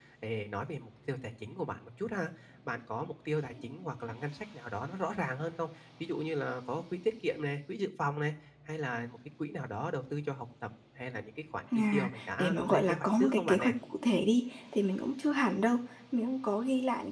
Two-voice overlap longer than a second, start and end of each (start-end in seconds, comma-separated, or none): 11.9-13.7